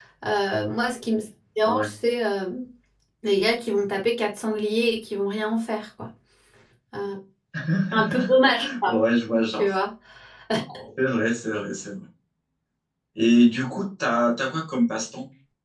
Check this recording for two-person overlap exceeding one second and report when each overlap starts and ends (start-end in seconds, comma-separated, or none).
none